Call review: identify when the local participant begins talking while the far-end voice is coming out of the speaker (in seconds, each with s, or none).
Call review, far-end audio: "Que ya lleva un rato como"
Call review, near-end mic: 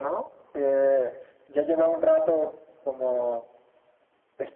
none